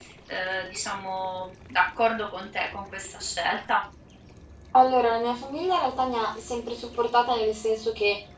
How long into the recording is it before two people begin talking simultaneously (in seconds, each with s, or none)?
none